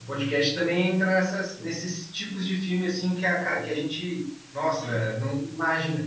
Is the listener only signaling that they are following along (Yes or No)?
Yes